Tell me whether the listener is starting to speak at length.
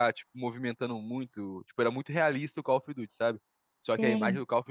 No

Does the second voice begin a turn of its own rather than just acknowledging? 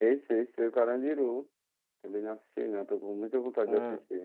Yes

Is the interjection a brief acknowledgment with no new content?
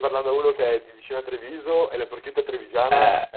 No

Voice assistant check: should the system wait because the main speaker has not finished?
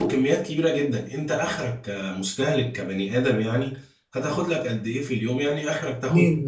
Yes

